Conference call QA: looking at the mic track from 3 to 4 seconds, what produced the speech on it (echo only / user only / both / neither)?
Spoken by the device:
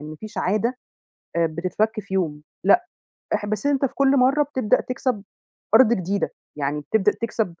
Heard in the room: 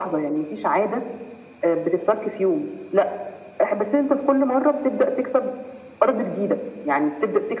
echo only